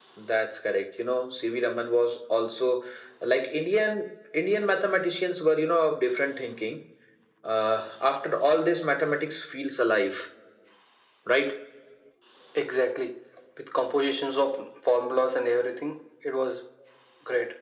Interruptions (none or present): none